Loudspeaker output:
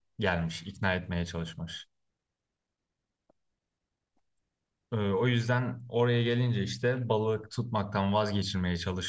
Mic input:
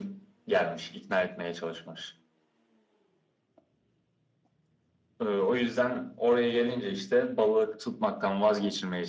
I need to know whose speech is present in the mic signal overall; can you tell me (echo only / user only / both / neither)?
echo only